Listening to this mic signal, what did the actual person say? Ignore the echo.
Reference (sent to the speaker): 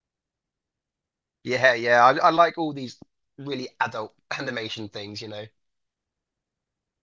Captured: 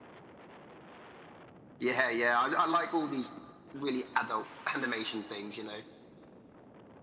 none

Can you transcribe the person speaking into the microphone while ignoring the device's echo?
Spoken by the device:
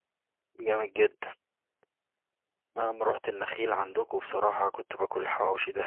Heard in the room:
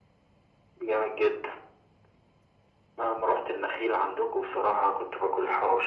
none

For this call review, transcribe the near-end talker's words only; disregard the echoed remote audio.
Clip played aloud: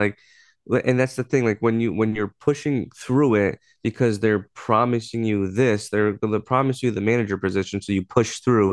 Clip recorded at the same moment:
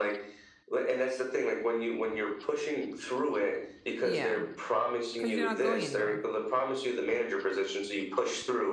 Yeah. Because you're not going anywhere.

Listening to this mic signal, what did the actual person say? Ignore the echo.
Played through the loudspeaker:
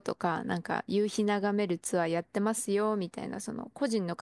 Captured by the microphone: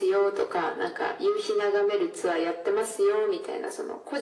none

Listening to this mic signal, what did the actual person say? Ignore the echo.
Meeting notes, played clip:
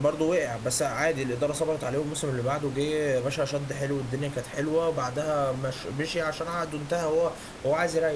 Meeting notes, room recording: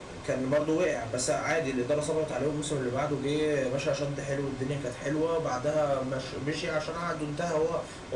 none

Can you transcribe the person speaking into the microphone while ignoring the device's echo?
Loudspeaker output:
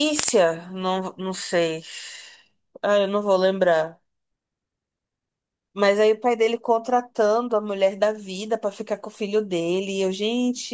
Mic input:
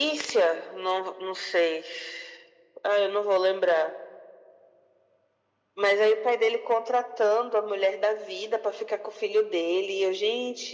none

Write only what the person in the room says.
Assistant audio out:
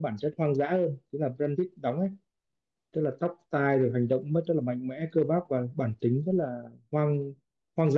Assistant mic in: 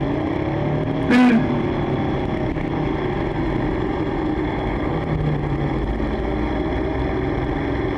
ừ

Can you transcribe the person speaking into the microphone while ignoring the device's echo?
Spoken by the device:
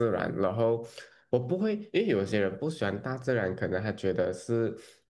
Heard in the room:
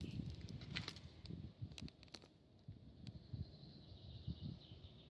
none

